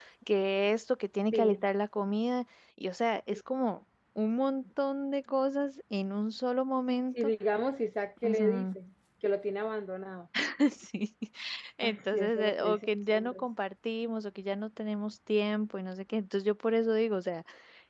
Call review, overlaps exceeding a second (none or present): present